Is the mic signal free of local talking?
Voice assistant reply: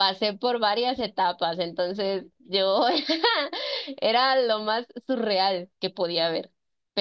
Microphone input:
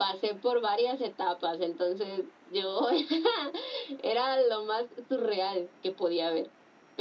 Yes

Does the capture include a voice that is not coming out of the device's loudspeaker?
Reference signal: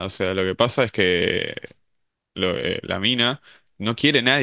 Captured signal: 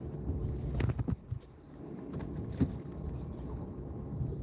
No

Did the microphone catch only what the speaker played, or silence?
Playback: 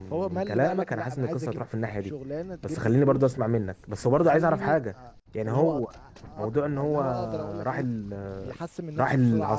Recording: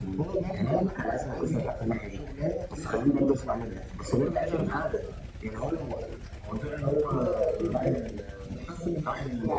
Yes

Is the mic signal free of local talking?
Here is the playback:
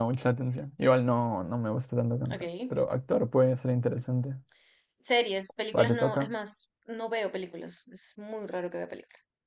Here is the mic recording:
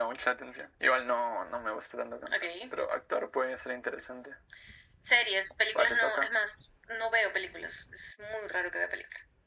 Yes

